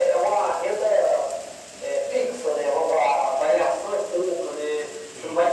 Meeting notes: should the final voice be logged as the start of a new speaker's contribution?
No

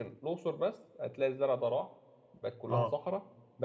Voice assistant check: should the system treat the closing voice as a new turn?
No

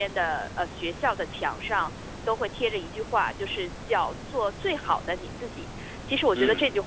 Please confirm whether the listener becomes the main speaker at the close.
No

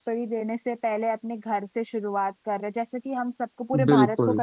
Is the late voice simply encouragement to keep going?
Yes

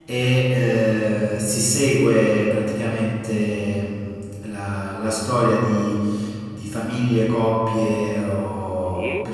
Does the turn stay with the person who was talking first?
Yes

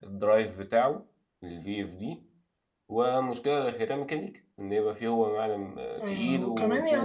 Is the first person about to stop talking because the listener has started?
Yes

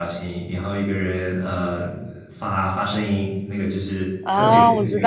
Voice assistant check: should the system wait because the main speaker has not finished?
No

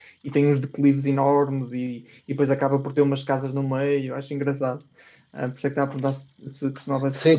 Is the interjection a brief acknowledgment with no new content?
No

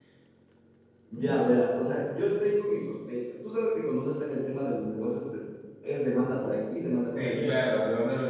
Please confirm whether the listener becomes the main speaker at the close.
Yes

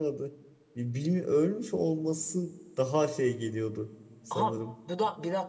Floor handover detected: Yes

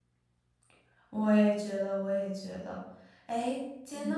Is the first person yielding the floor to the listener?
No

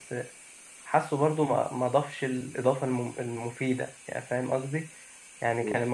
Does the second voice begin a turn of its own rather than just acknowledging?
No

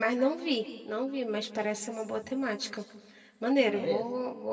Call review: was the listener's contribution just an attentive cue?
Yes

